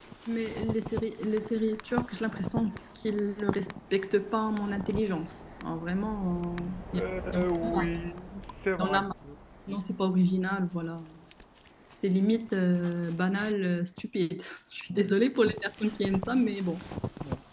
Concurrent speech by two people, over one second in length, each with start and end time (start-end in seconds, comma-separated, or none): 6.5-7.9